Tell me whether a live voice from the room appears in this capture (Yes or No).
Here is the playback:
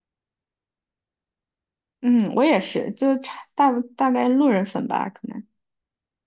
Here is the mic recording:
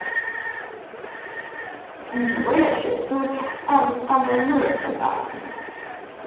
No